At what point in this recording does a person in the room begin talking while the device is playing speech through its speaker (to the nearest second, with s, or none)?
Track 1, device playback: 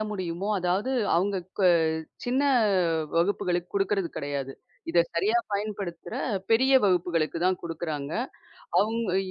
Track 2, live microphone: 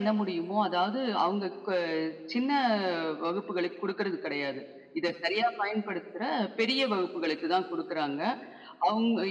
none